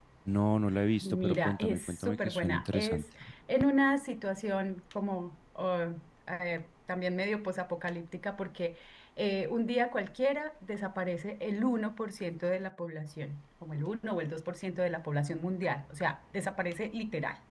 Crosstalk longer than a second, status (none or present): present